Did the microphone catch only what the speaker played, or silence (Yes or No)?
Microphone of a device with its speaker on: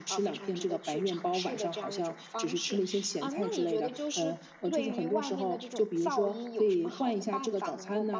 Yes